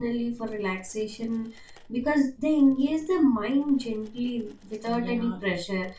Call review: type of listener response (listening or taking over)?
listening